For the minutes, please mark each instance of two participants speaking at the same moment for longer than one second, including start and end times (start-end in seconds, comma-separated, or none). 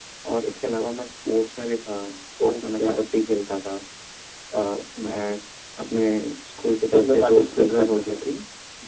6.9-8.2